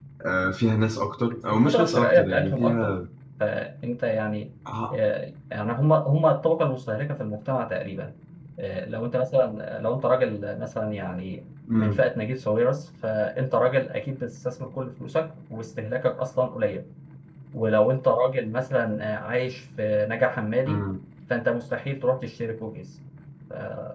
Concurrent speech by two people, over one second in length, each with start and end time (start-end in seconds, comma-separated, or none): 1.5-2.9